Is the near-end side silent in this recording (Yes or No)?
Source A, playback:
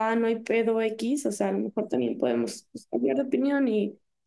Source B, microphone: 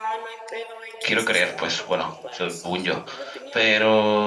No